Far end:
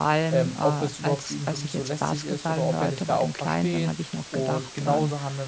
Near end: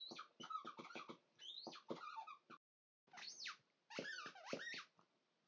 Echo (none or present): none